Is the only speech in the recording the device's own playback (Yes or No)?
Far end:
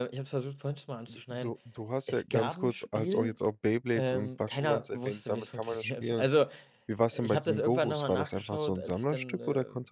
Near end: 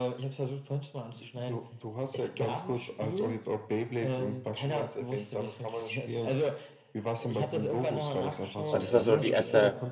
No